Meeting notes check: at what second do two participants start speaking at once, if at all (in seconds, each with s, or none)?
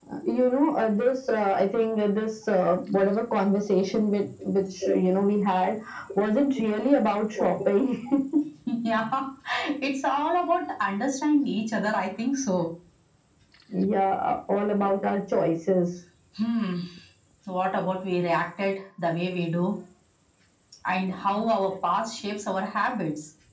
none